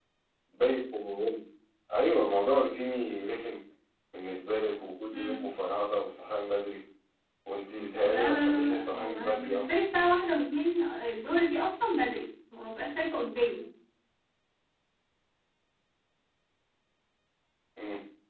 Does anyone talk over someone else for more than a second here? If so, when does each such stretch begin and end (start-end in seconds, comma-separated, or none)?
8.0-9.7